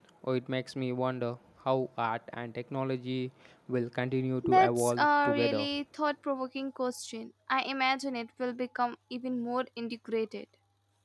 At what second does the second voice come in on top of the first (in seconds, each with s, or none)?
4.4 s